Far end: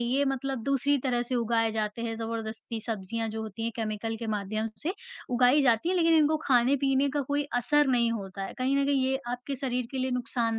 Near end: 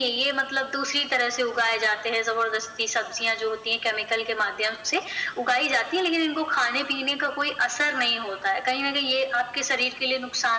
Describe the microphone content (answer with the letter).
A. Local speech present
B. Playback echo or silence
B